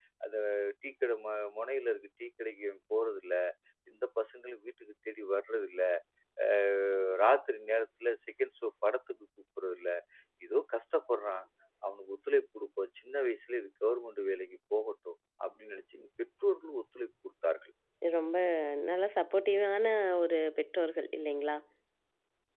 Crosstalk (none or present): none